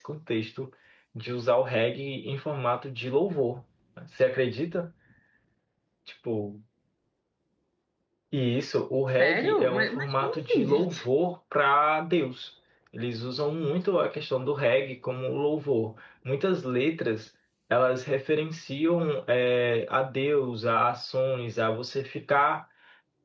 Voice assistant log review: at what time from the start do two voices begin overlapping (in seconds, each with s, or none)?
9.2 s